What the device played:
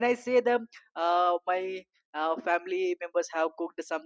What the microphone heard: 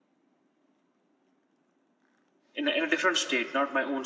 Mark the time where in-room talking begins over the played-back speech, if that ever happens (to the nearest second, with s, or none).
3 s